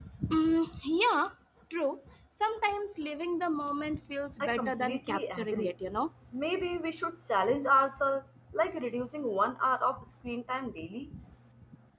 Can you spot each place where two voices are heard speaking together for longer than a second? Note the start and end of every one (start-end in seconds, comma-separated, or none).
4.4-5.7